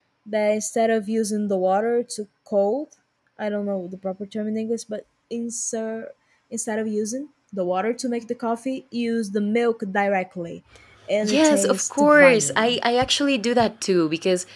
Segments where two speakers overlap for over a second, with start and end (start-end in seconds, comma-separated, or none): 11.2-12.8